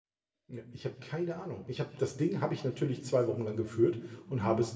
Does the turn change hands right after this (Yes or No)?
No